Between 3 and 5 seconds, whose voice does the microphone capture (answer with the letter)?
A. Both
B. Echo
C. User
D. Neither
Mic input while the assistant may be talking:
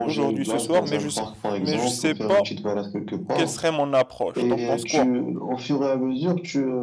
A